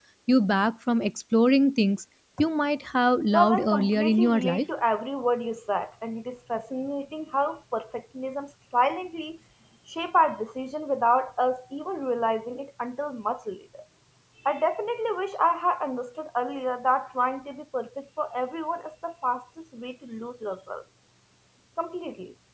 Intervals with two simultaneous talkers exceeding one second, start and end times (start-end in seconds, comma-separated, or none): 3.3-4.7